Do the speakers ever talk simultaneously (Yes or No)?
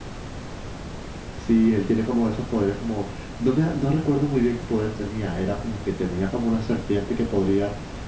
No